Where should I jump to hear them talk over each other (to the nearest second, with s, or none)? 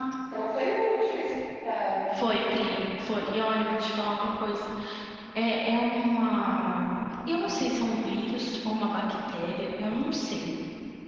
none